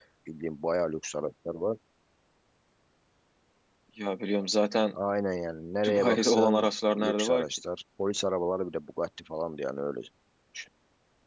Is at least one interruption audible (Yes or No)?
Yes